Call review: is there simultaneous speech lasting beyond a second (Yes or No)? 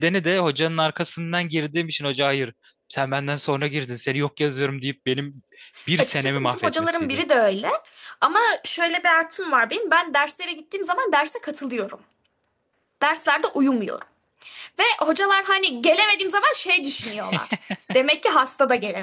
Yes